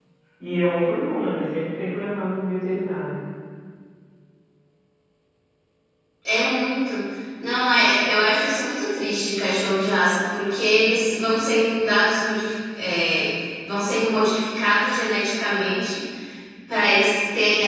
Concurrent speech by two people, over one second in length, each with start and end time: none

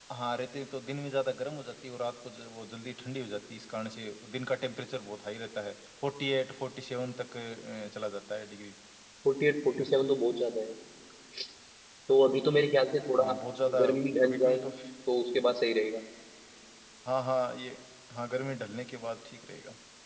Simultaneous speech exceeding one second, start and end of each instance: none

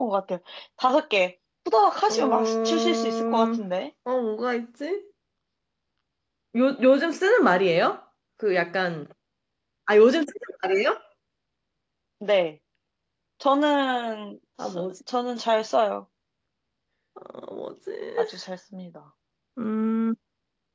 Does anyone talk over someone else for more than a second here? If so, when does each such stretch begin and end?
2.1-3.7

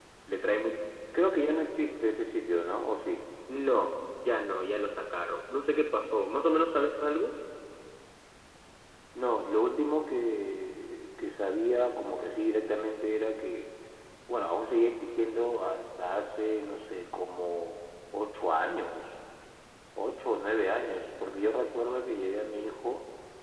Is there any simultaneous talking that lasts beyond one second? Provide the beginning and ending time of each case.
none

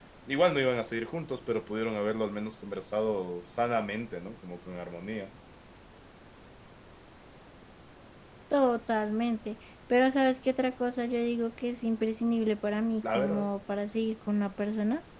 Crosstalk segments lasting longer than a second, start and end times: none

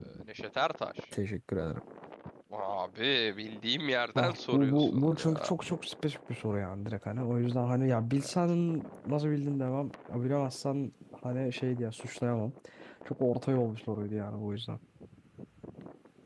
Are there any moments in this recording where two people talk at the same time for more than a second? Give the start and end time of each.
4.2-5.5

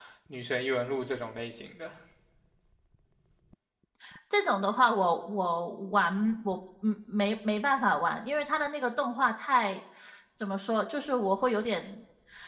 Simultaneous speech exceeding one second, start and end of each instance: none

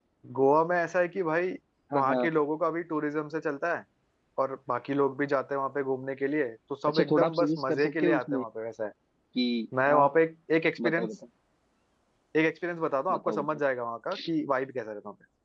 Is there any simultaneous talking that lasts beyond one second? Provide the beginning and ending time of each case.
6.9-8.4

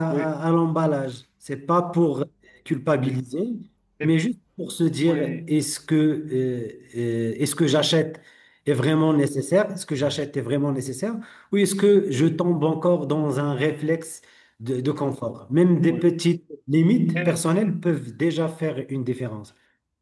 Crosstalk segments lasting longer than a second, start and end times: none

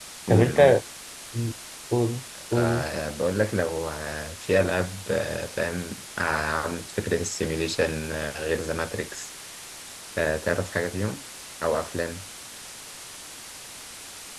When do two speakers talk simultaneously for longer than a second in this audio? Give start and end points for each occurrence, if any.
none

